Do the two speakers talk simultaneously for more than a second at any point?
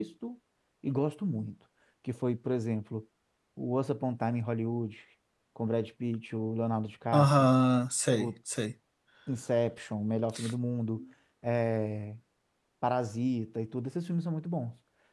No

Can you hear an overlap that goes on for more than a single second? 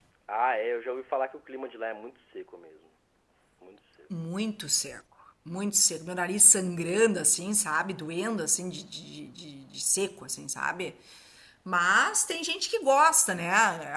No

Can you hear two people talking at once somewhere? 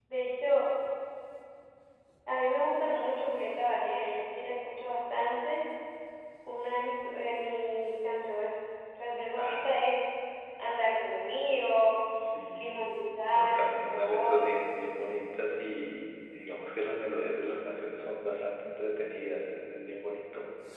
Yes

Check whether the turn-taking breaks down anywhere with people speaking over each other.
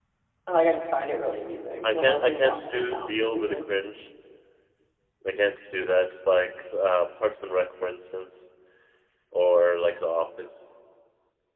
Yes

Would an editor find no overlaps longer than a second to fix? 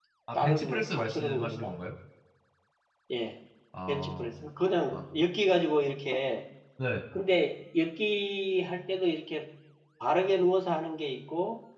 No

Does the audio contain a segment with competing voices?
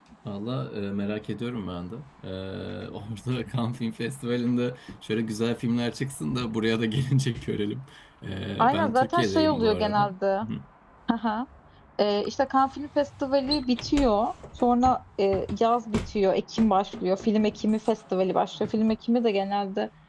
Yes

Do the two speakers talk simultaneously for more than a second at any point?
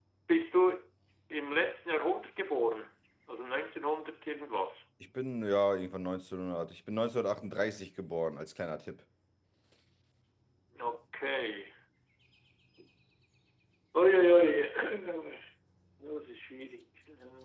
No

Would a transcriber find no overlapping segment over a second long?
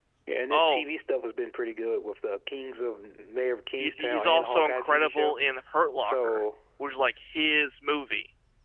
No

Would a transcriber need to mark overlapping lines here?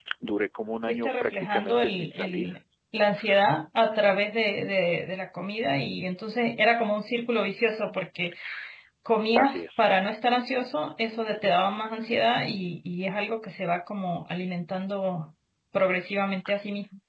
Yes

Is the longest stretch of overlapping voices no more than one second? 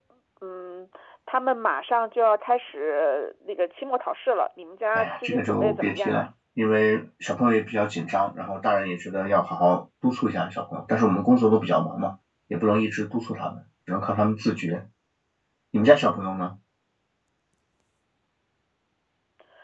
No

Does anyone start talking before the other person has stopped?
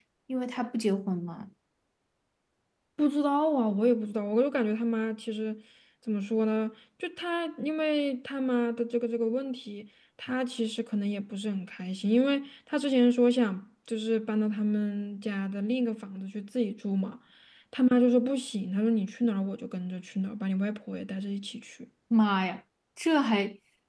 No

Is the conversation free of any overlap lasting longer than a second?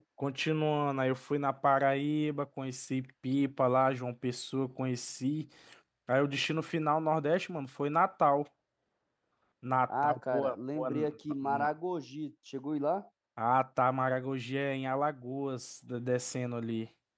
No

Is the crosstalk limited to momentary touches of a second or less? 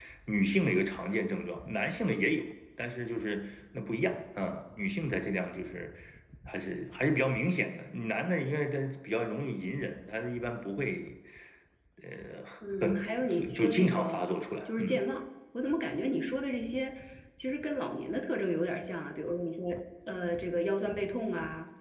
No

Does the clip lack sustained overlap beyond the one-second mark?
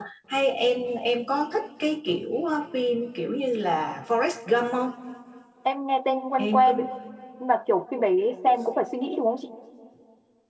Yes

